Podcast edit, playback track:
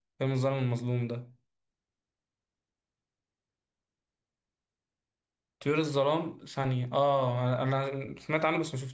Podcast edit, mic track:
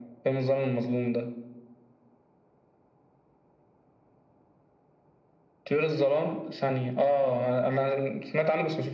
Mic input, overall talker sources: echo only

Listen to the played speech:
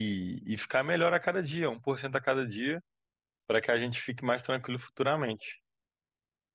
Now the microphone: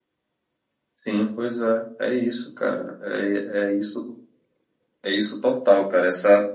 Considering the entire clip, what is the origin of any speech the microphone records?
user only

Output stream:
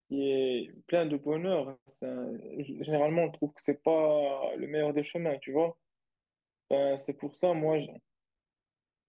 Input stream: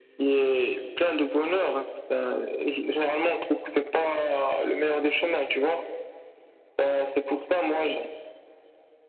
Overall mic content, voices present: echo only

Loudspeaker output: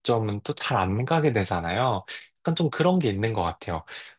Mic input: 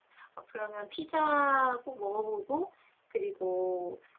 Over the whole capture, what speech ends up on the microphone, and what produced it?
user only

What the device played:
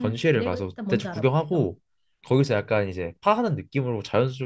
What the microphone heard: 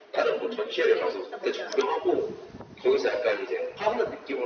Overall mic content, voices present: echo only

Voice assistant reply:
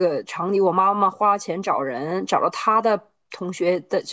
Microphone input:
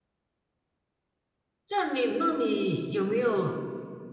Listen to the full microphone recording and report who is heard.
user only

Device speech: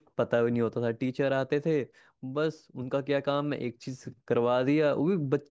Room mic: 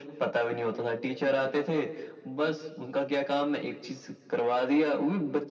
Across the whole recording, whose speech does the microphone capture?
echo only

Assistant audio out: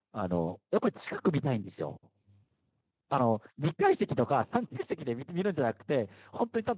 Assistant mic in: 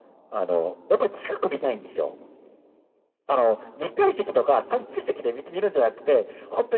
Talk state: echo only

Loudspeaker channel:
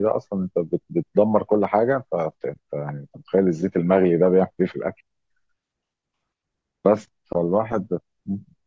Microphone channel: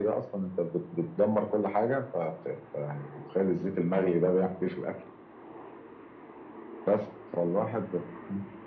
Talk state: echo only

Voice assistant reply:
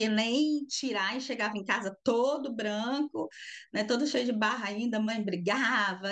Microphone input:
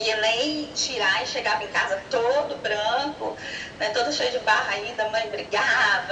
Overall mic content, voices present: echo only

